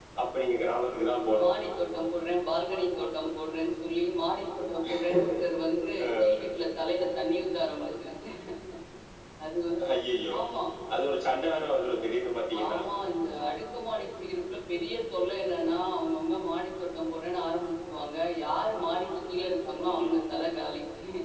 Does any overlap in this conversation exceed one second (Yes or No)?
No